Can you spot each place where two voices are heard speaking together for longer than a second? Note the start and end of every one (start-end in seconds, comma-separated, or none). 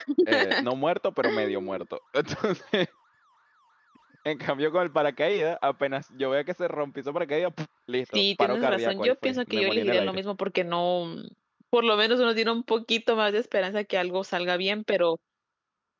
8.1-10.2